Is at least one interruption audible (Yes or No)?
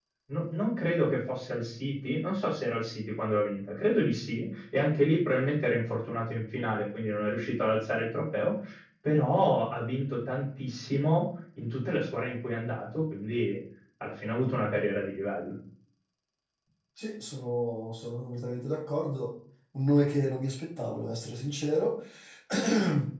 No